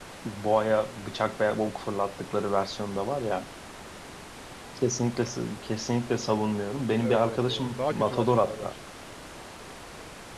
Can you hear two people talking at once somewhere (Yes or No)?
Yes